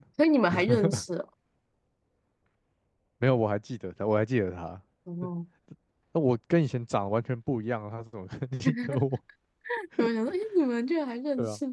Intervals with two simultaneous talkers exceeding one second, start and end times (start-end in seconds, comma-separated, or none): none